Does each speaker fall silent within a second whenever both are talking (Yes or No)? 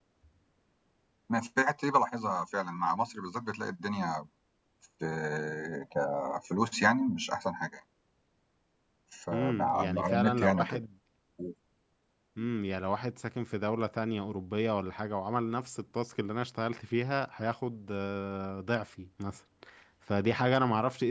No